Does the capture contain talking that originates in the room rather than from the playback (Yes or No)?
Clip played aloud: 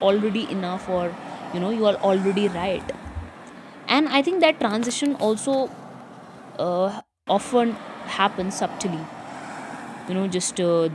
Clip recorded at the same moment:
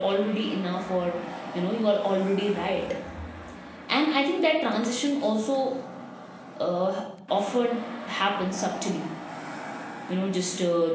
No